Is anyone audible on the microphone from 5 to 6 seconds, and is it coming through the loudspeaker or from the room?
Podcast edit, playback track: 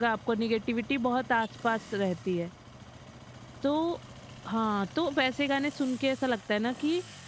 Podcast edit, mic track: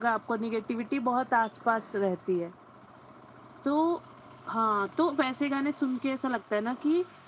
echo only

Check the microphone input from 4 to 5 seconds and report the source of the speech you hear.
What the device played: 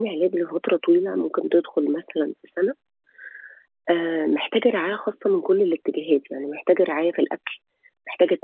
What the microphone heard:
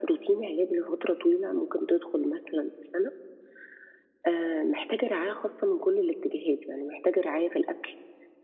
echo only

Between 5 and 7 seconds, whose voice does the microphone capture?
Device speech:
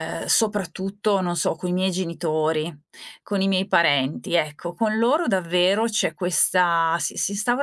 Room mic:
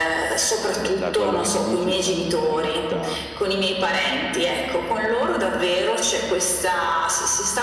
echo only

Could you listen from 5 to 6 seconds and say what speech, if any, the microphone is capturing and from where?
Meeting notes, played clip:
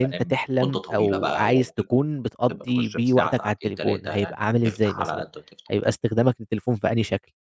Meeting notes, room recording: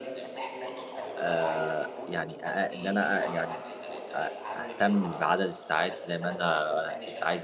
both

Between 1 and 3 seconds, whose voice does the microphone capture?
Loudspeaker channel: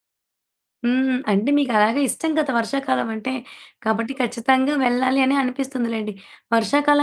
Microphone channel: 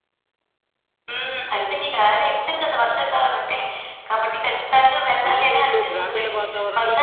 echo only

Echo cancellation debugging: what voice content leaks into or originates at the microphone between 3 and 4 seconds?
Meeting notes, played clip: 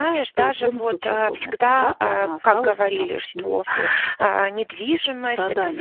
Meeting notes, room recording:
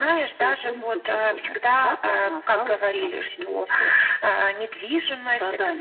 echo only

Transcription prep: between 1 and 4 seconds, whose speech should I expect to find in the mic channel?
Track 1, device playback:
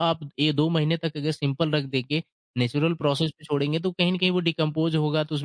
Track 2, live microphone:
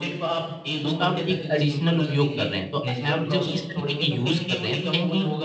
both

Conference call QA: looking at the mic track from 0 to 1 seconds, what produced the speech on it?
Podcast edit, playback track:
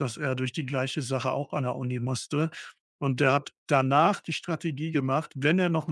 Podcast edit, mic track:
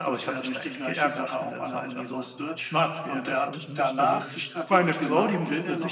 both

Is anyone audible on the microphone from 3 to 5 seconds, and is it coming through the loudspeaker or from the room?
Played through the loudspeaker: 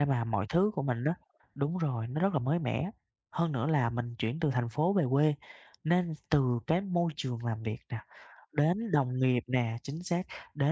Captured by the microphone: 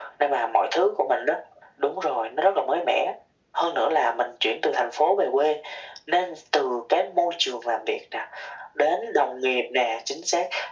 echo only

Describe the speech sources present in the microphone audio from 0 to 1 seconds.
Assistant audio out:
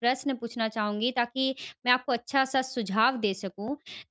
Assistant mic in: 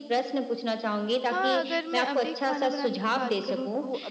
echo only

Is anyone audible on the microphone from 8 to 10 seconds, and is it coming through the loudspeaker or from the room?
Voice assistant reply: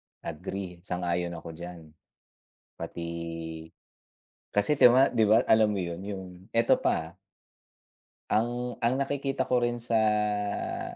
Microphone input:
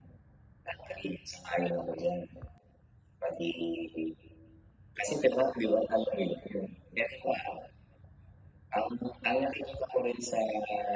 echo only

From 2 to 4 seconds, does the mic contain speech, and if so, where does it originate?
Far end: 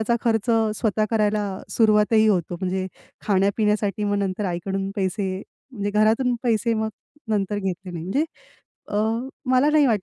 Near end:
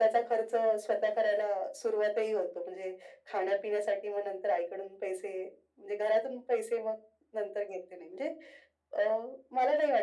echo only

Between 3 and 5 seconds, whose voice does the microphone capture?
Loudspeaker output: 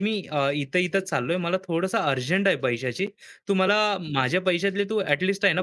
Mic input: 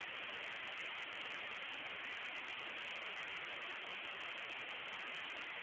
neither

